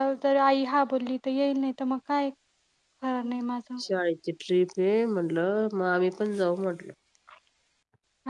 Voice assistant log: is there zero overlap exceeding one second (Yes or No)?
Yes